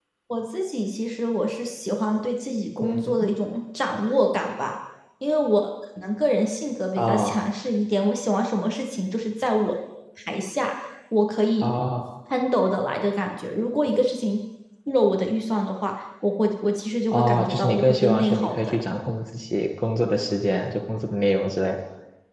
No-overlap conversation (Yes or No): No